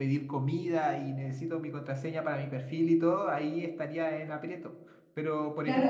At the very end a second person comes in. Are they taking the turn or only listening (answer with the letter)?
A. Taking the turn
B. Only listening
A